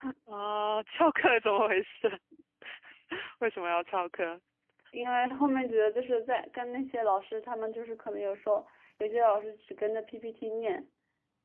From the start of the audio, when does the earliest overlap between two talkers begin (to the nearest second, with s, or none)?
none